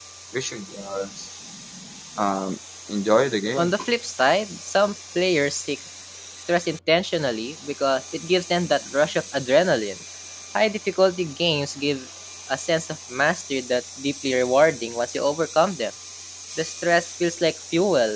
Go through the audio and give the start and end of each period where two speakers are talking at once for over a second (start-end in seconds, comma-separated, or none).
none